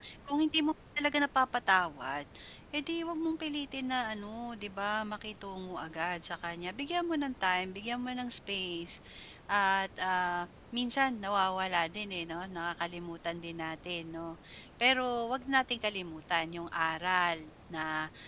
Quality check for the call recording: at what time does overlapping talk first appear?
none

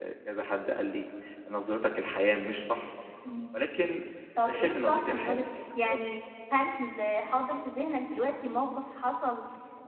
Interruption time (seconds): 4.4 s

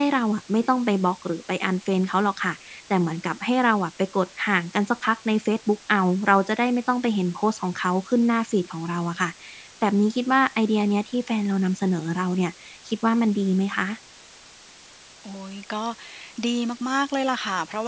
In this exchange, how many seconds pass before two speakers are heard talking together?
none

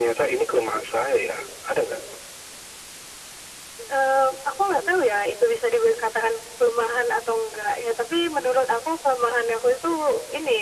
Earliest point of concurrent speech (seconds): none

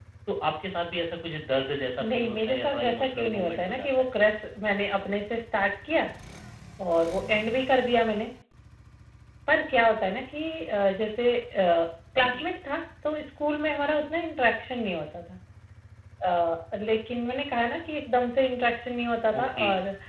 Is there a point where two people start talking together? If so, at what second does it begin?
2.0 s

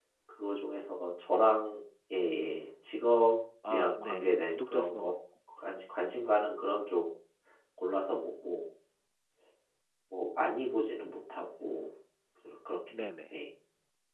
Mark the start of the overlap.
3.7 s

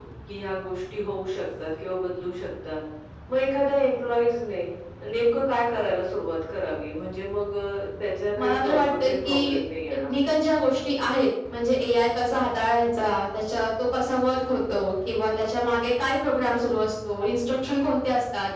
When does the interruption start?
8.3 s

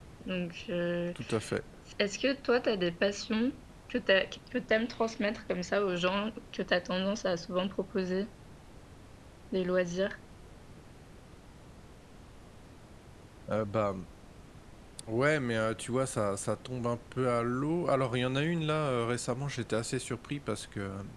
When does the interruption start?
none

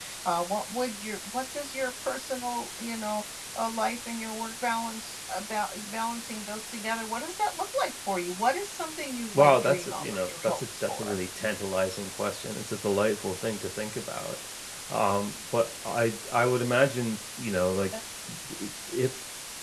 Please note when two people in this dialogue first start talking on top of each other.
9.3 s

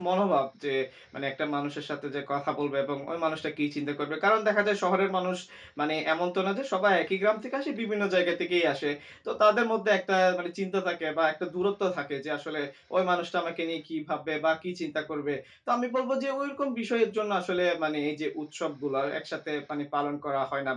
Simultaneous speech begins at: none

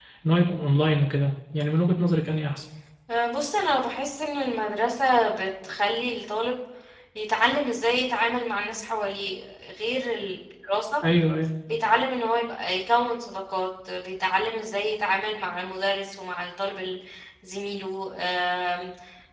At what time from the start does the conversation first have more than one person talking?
none

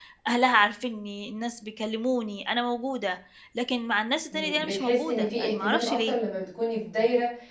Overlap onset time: 4.3 s

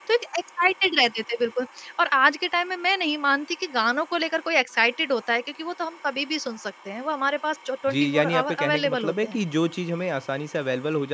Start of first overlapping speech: 7.9 s

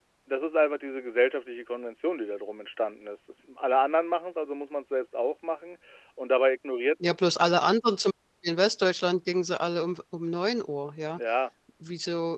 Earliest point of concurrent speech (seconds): none

